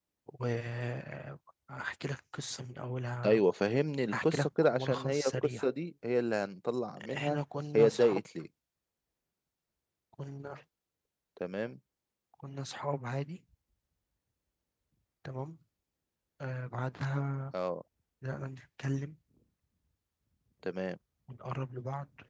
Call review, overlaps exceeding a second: present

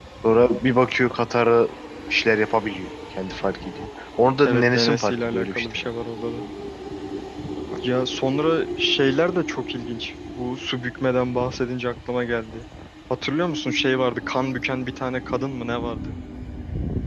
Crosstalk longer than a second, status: present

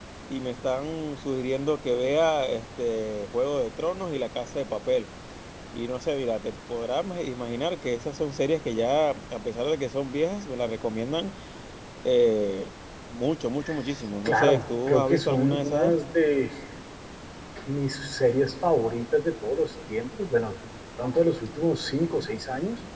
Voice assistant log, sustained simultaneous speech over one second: present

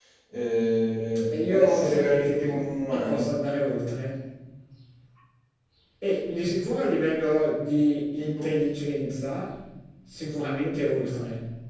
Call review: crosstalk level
present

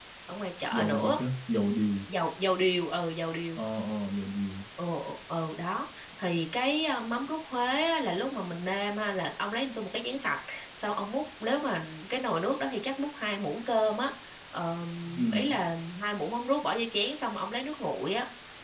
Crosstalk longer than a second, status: none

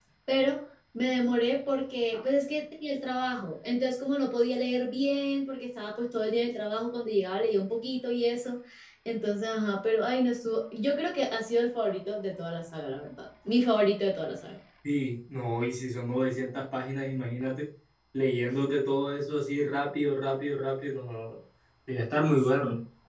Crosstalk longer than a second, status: none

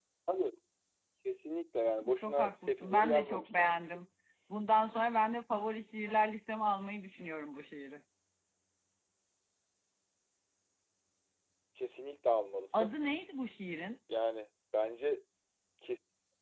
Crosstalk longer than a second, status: present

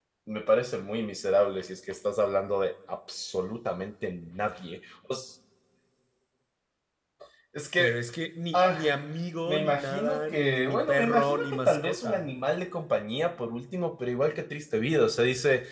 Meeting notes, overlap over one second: present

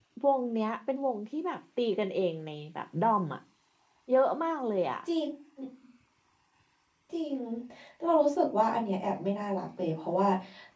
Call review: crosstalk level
none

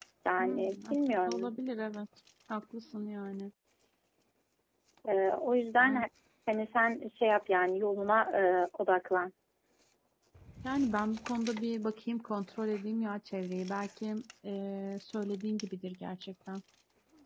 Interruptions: present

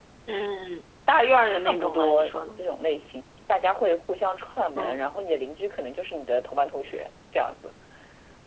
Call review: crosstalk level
present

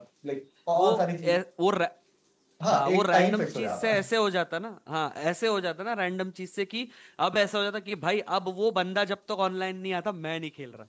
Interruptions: present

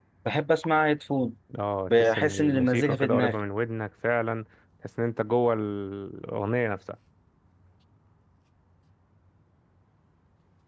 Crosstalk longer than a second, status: present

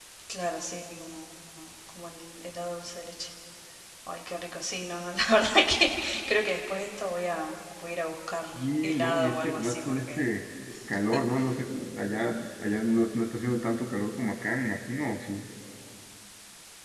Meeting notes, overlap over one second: present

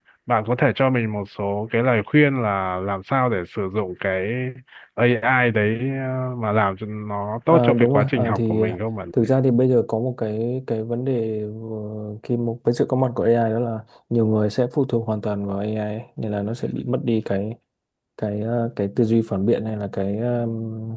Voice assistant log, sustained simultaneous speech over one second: present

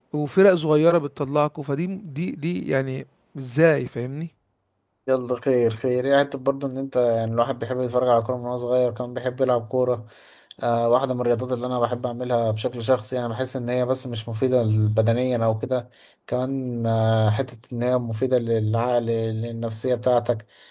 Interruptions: none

